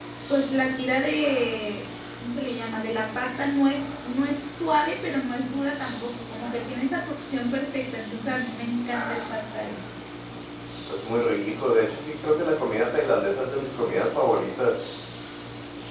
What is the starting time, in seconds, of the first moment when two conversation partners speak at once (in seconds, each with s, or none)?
none